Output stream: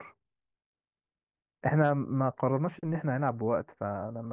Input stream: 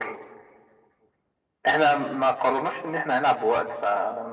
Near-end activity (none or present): none